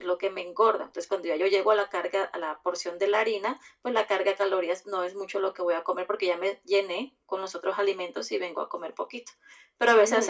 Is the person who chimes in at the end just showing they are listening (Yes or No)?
Yes